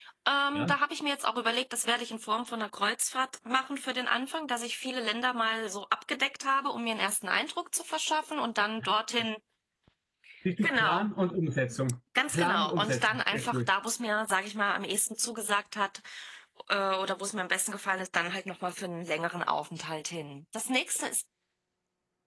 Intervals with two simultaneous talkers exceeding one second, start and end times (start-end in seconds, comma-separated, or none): 12.3-13.7